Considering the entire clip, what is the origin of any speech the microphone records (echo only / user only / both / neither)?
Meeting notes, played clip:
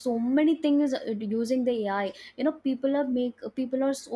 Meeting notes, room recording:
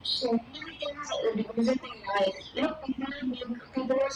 echo only